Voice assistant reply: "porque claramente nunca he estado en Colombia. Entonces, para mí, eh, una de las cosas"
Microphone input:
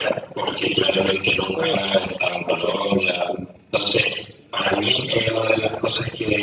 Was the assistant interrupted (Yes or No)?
Yes